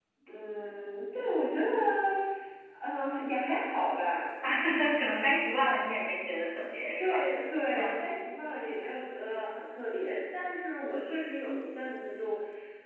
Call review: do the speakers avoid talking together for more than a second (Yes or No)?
Yes